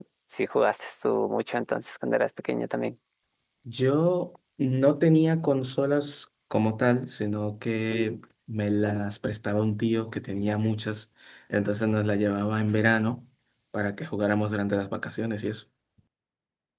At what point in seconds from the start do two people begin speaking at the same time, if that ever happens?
none

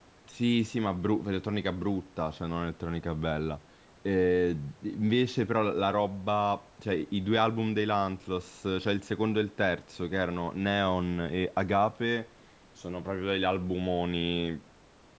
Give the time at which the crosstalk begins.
none

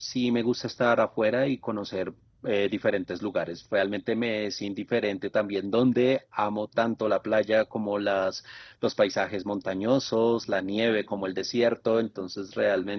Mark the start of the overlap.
none

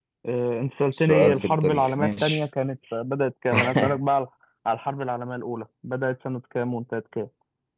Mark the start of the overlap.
0.9 s

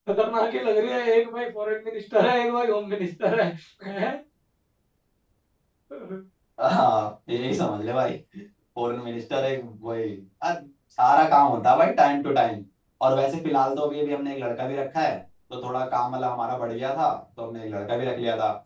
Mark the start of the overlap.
none

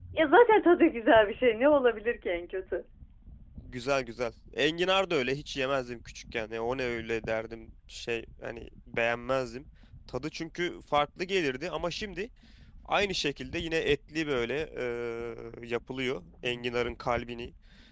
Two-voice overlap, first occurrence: none

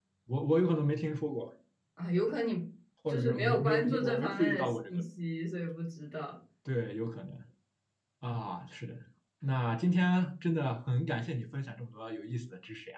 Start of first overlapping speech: 3.1 s

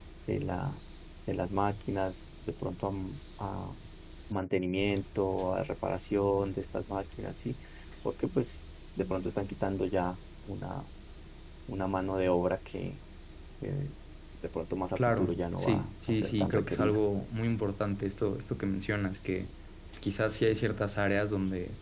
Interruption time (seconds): 15.0 s

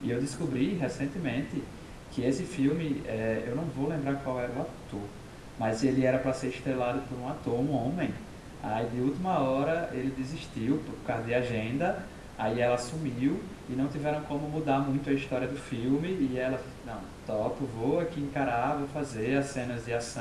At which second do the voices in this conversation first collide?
none

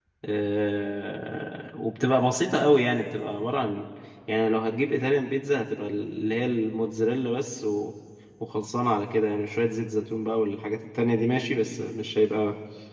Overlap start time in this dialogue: none

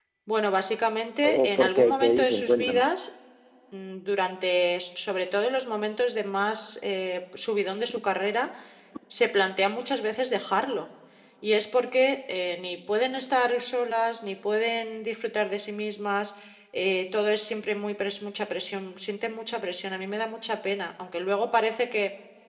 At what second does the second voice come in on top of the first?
1.2 s

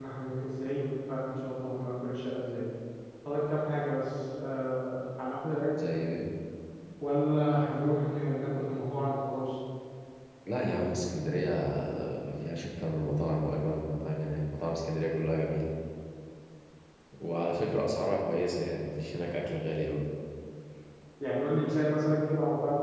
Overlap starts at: none

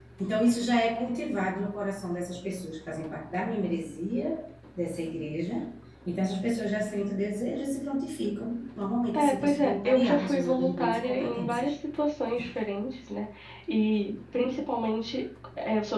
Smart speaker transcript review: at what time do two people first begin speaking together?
9.1 s

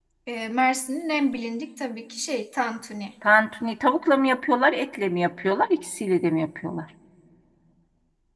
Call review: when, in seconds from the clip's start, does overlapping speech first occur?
none

